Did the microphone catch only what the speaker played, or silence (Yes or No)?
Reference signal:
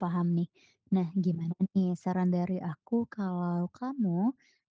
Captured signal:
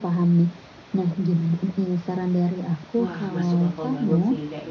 No